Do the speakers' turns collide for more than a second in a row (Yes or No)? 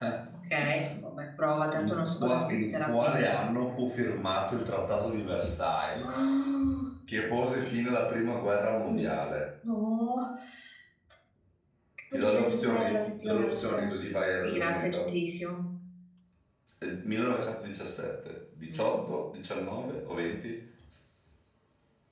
Yes